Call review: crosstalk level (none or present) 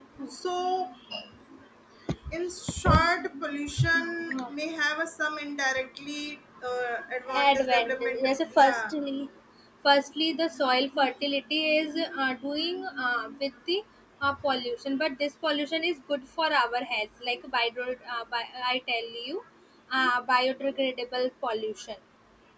present